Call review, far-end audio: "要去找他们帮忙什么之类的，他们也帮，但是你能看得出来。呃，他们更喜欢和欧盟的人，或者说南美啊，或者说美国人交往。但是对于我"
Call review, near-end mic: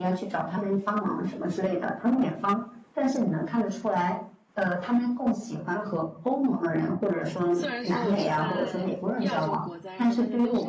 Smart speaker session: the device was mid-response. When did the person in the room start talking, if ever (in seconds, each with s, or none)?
7.5 s